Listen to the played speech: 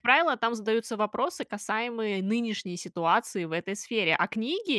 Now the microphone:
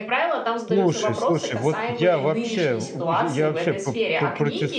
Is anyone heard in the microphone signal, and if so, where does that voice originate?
both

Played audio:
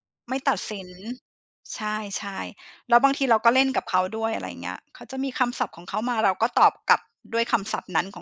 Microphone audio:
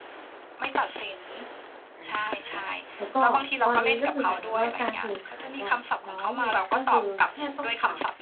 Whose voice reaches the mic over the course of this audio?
both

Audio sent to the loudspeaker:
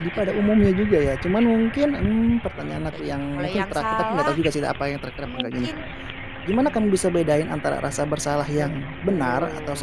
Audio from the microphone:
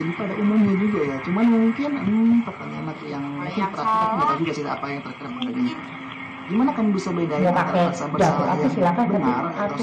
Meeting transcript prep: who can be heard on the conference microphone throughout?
both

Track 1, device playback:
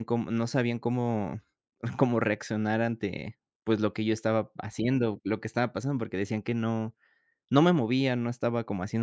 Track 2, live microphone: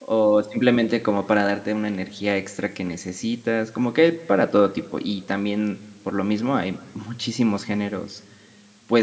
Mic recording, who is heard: user only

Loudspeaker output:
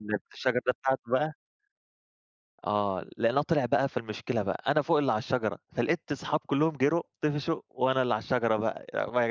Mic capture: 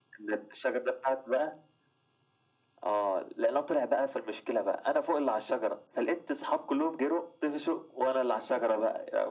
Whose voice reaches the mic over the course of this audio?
echo only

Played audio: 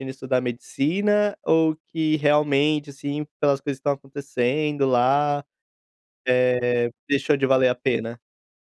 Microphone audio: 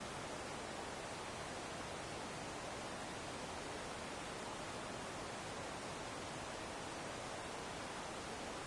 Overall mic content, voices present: neither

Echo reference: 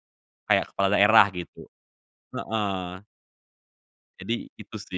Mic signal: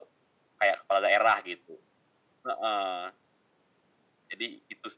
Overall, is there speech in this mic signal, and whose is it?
echo only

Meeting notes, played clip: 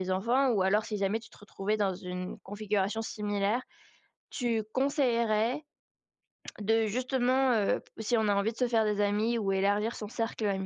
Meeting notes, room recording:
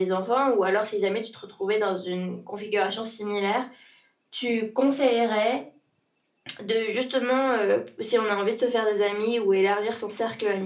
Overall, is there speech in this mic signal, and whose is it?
echo only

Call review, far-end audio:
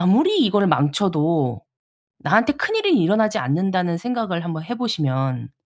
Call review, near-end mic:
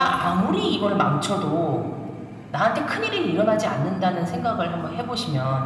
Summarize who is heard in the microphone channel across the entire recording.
echo only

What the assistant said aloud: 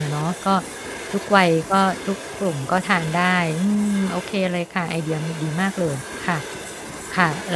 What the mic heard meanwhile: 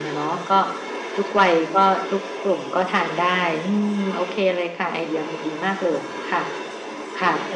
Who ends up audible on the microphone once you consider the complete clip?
echo only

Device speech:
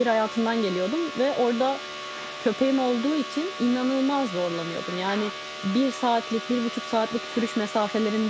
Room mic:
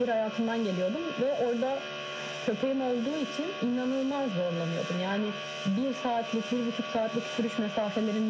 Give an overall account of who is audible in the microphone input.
echo only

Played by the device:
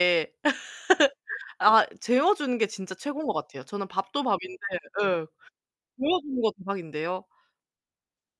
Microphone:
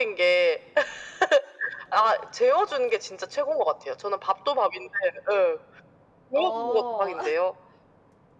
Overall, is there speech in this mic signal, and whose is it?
both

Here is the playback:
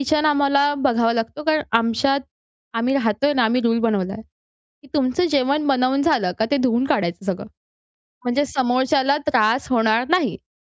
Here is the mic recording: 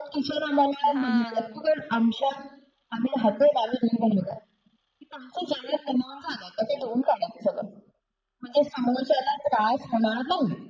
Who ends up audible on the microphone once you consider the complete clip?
both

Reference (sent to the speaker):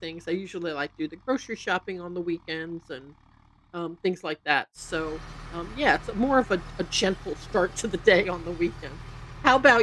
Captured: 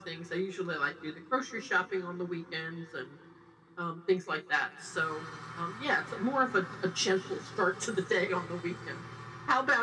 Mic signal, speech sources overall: echo only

